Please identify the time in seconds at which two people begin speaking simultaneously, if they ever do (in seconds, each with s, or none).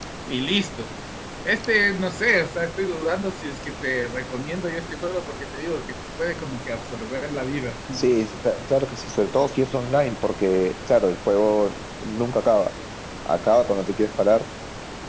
none